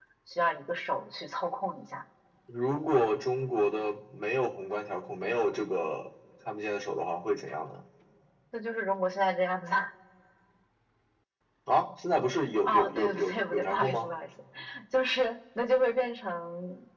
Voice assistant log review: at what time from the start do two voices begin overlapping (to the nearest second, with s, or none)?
13 s